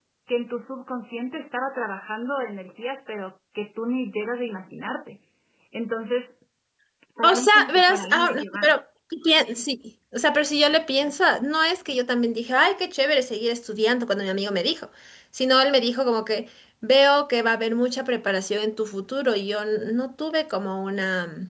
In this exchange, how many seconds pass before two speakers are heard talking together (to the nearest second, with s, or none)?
7 s